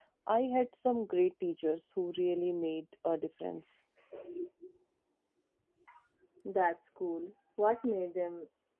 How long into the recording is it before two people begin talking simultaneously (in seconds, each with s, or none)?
none